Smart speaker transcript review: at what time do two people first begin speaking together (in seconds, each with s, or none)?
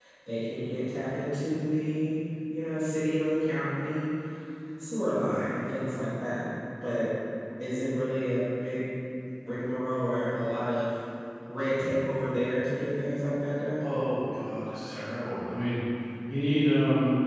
none